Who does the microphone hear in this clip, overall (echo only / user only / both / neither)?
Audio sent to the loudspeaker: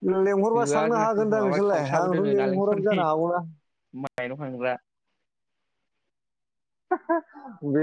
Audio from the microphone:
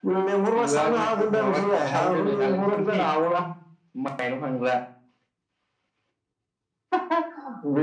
echo only